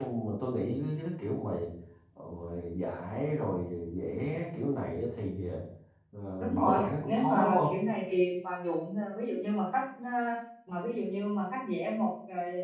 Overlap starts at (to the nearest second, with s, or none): 6 s